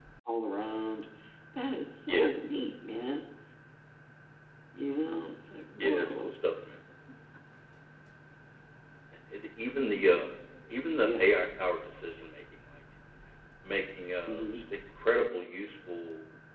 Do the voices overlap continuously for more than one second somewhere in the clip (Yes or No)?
No